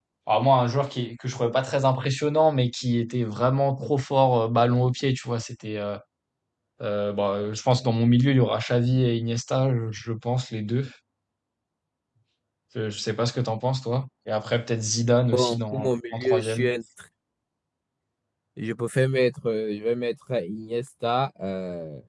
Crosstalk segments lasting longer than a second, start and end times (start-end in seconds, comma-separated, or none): 15.3-16.7